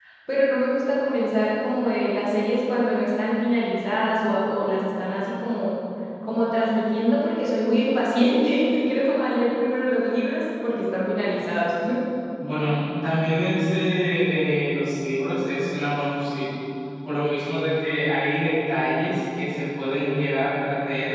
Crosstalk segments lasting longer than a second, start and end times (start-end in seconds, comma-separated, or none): none